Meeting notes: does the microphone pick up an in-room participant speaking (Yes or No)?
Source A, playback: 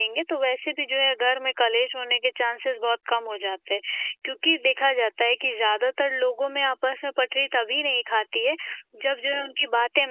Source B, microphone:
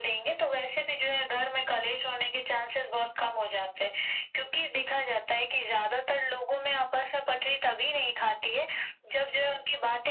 No